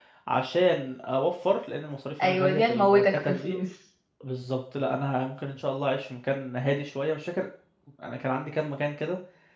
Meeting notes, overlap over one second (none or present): present